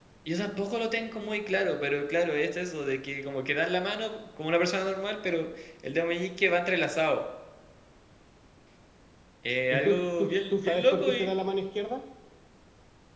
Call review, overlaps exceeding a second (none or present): present